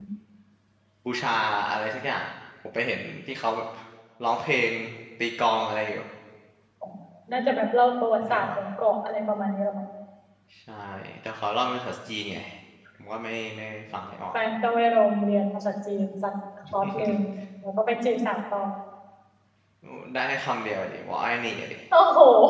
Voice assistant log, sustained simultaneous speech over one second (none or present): none